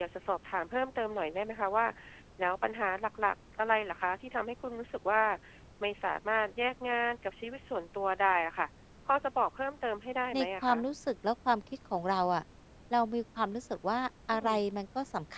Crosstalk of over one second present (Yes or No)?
No